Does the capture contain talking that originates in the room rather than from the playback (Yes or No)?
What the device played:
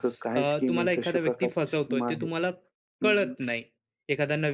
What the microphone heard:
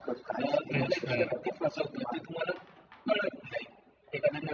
Yes